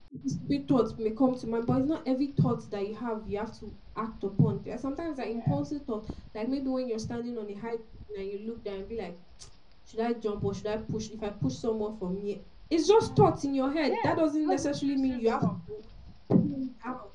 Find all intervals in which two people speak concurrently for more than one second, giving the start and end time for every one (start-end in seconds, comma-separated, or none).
13.9-15.5